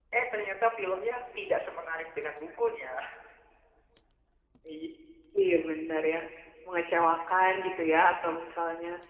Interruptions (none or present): none